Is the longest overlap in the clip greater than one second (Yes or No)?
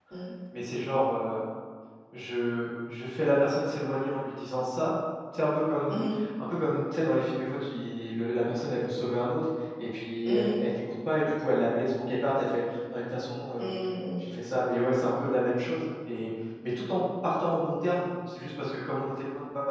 No